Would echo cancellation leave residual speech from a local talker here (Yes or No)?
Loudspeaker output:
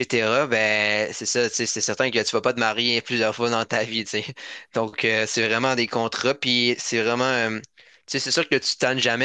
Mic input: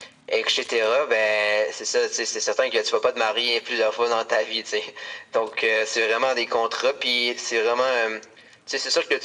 No